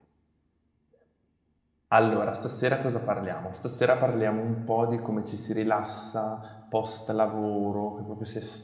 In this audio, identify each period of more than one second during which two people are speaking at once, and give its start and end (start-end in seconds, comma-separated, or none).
none